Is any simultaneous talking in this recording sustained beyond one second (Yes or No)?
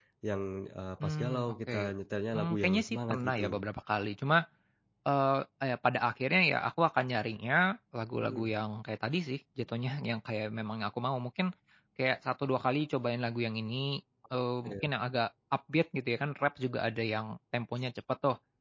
Yes